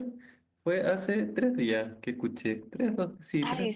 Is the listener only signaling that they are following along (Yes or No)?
No